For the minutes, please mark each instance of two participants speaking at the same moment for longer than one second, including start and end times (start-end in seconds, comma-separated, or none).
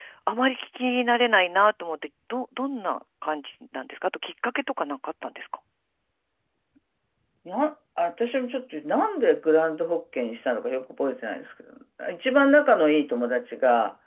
none